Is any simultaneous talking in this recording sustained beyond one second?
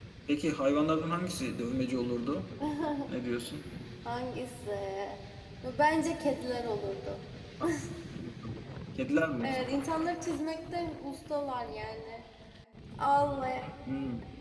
No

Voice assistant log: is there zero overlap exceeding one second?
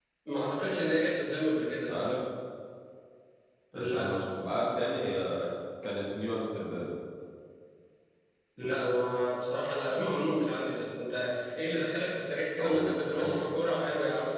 Yes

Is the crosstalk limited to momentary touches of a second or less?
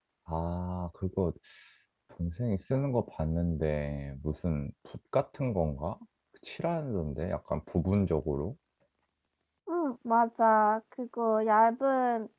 Yes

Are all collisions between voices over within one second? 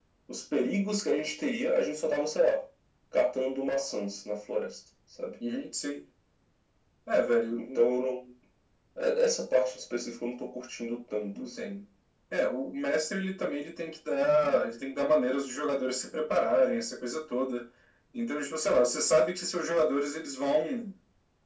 Yes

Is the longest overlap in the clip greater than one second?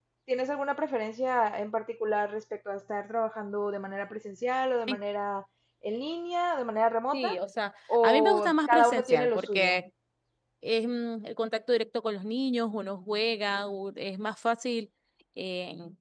Yes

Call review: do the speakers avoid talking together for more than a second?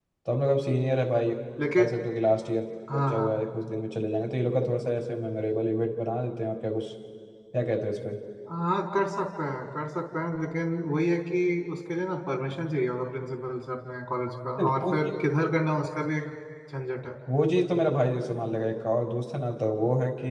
Yes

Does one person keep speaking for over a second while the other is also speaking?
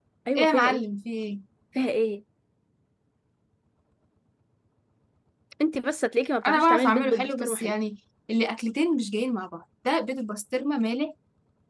Yes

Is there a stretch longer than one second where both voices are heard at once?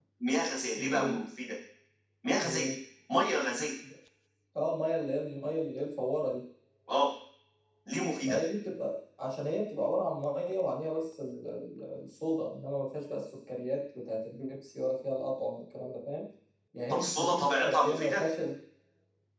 Yes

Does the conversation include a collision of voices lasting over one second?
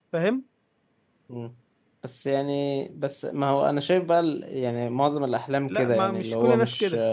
Yes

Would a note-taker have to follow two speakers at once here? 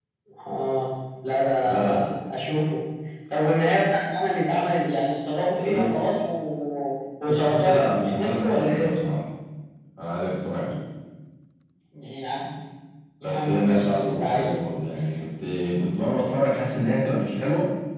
Yes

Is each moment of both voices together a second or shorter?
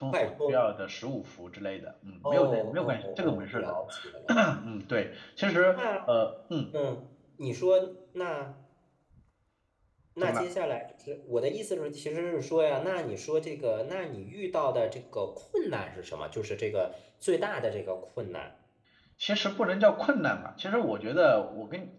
No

